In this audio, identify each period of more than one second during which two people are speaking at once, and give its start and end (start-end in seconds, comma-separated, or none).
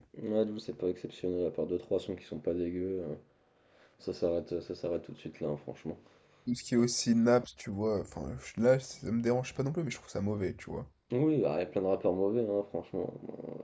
none